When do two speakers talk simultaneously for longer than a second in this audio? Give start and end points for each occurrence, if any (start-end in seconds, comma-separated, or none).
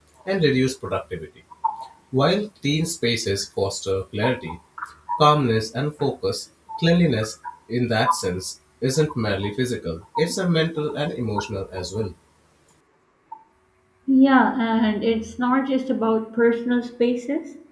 none